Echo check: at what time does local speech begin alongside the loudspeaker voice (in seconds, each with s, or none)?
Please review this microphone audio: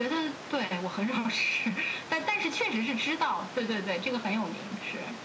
none